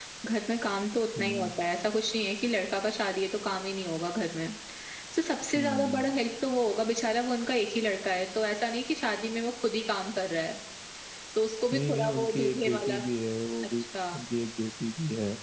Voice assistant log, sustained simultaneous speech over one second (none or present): present